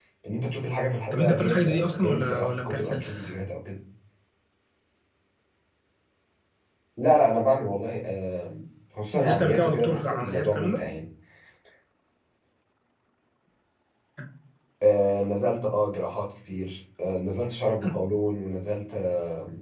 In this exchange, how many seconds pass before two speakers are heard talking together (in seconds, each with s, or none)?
1.1 s